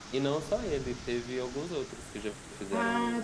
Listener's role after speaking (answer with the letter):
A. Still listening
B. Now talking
B